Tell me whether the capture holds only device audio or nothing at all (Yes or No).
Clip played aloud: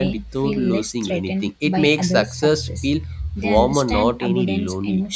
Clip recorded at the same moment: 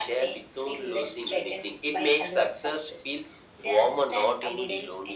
Yes